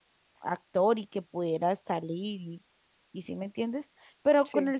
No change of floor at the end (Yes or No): Yes